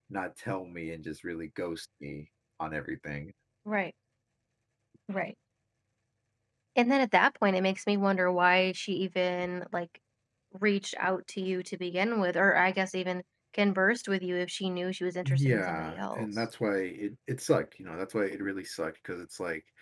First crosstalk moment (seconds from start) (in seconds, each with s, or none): 15.2 s